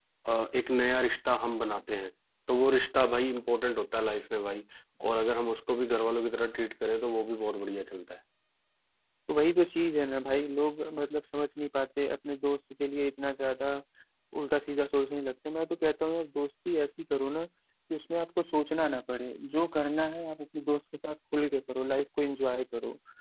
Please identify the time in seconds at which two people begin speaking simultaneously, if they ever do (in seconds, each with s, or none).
none